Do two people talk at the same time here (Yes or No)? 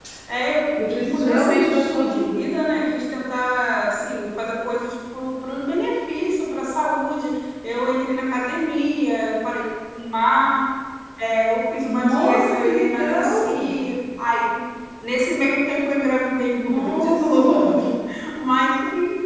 Yes